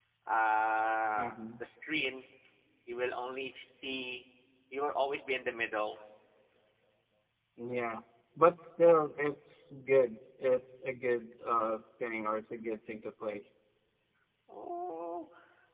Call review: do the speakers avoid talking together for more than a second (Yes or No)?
Yes